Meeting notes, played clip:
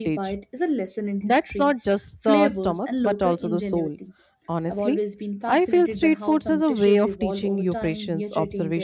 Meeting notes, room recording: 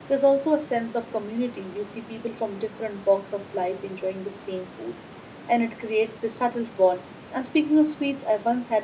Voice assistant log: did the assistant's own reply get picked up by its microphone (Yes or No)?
No